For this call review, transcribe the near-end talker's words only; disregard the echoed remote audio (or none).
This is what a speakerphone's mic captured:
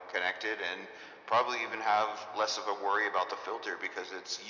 none